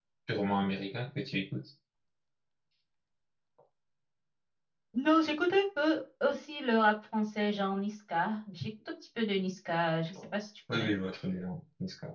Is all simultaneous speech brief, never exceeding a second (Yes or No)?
Yes